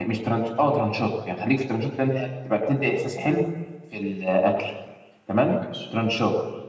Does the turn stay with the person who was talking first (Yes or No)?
Yes